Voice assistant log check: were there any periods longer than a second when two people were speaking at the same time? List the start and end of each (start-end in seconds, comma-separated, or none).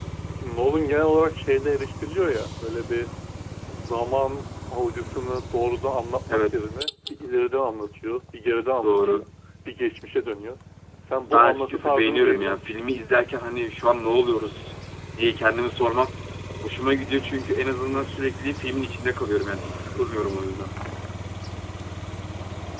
11.2-12.6